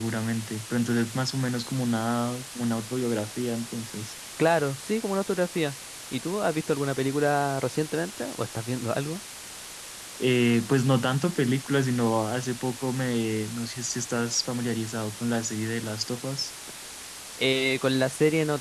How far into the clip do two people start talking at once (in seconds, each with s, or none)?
none